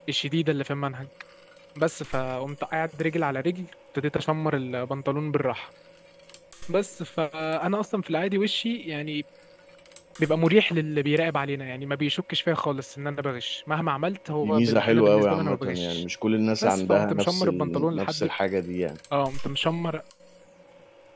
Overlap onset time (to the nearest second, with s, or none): 14 s